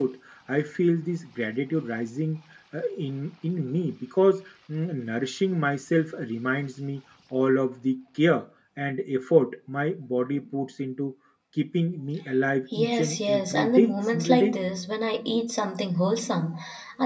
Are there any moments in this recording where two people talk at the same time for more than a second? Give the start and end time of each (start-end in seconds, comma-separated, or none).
12.8-14.5